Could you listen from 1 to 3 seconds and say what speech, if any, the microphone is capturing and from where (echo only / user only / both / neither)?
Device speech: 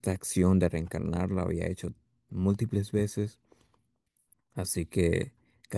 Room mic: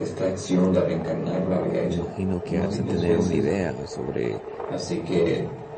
both